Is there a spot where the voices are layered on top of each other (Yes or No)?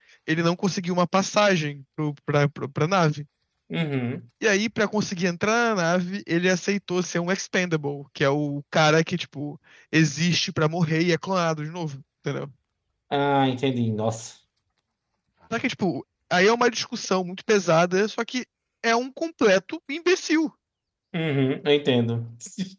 No